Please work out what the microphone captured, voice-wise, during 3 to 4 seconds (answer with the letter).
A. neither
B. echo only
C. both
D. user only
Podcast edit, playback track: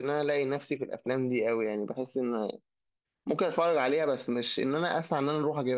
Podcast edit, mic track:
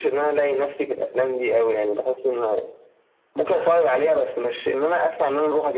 B